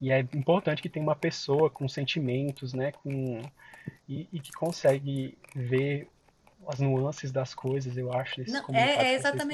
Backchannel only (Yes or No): No